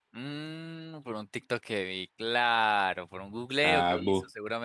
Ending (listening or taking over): taking over